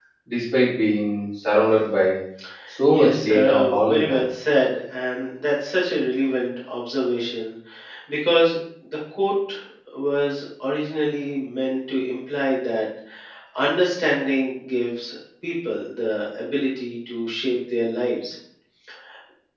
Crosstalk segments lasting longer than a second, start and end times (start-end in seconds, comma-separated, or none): 2.9-4.2